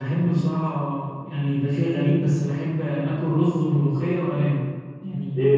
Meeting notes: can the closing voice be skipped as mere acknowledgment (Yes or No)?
No